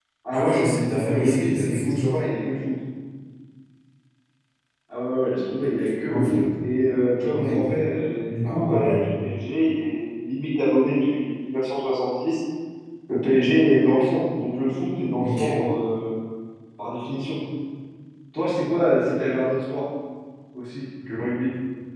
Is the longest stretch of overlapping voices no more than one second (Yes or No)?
No